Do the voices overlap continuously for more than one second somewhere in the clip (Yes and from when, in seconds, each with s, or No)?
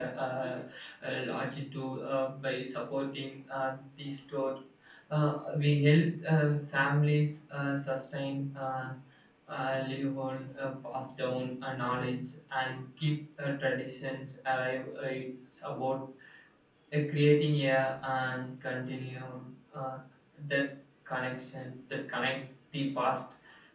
No